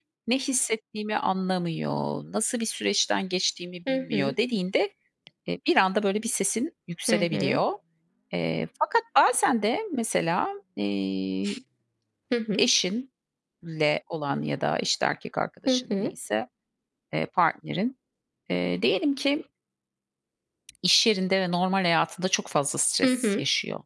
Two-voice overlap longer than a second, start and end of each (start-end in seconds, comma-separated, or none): none